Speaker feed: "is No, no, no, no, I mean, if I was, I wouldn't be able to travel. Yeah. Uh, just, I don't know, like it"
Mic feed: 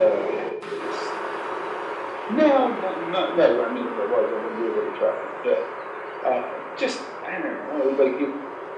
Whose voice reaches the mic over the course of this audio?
echo only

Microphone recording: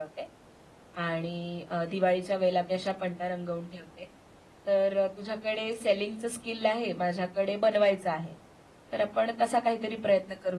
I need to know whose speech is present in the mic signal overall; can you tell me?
echo only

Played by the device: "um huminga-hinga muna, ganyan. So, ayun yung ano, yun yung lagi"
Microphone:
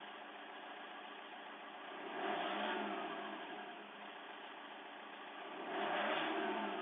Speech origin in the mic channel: neither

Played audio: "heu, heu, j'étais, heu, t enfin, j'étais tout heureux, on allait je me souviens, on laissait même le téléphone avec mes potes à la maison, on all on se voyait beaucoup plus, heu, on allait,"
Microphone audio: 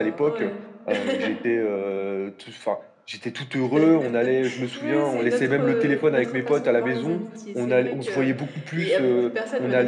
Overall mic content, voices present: both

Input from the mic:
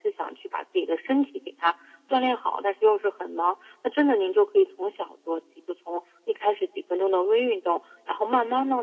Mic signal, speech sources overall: echo only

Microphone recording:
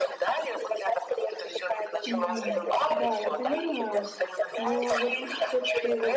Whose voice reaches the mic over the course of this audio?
both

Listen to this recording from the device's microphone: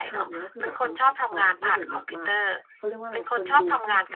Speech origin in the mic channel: both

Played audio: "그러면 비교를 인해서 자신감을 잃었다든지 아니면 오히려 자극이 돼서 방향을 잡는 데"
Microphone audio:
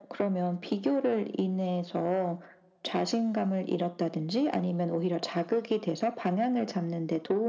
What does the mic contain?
echo only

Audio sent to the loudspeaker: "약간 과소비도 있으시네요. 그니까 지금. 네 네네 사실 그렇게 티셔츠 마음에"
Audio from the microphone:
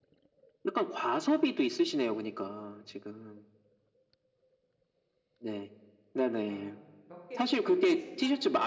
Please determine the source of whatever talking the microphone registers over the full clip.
both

